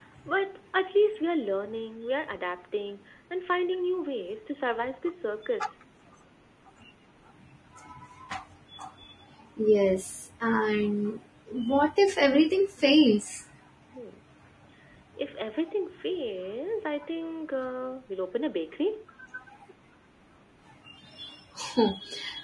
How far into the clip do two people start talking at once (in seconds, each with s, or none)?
none